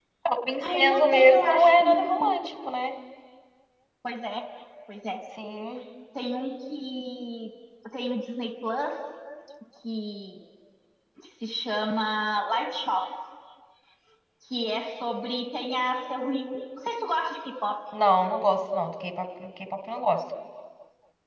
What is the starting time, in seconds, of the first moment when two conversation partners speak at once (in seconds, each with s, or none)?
0.6 s